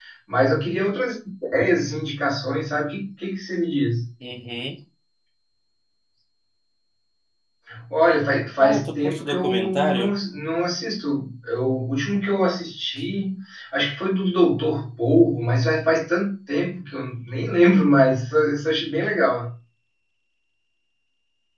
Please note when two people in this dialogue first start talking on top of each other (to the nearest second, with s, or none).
9 s